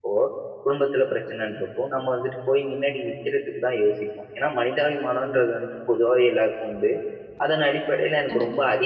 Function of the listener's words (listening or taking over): listening